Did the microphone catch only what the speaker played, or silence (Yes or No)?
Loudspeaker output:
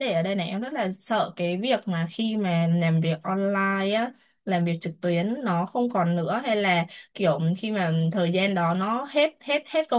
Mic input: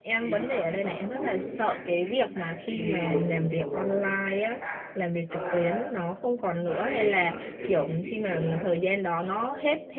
No